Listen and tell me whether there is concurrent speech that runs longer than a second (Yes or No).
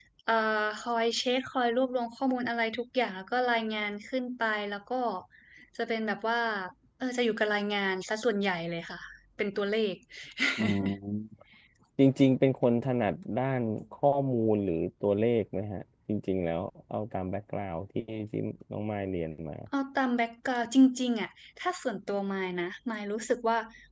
No